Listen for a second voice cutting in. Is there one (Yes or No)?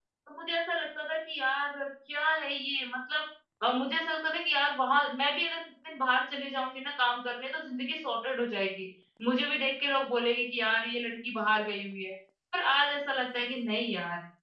No